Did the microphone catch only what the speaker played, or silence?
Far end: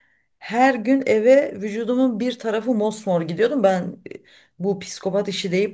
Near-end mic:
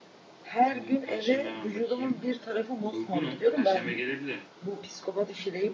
No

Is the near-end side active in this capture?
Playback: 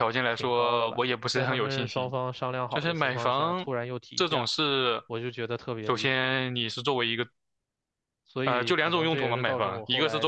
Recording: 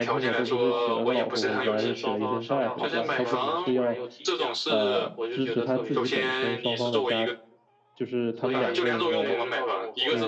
Yes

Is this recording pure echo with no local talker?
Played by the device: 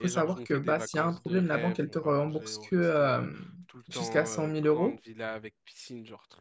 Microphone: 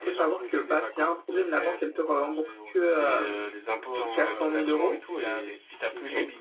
No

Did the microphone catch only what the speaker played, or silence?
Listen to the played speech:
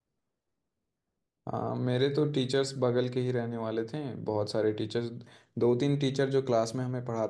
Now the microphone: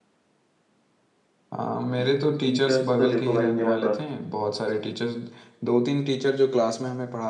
No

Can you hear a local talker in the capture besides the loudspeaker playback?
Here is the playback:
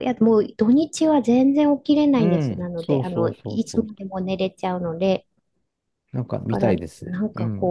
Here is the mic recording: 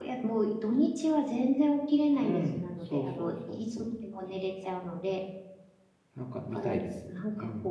No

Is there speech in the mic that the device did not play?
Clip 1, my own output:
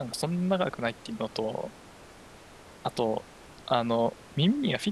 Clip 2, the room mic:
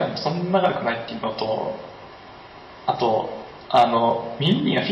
No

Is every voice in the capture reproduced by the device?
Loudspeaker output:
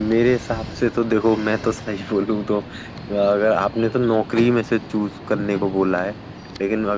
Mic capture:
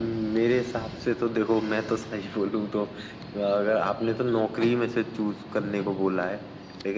Yes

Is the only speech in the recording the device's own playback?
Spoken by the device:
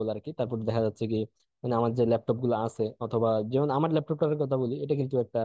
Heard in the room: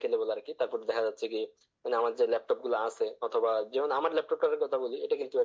Yes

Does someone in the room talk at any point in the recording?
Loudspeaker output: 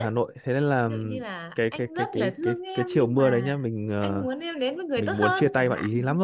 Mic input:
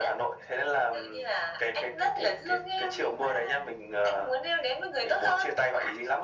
No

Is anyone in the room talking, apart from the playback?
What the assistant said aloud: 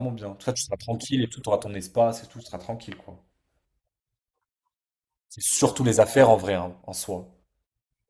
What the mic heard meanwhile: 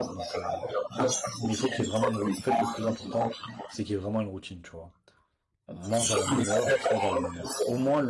Yes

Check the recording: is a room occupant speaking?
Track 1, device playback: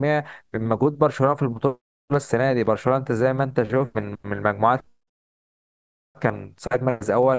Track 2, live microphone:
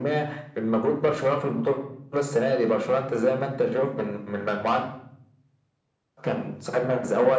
No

